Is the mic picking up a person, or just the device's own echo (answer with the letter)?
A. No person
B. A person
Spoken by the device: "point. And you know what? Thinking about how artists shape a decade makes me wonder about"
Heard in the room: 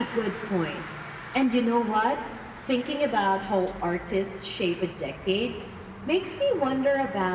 A